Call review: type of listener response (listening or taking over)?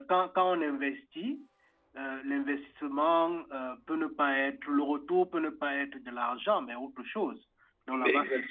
taking over